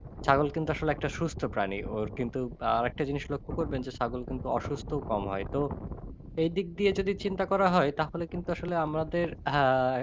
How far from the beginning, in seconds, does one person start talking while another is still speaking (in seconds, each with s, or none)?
none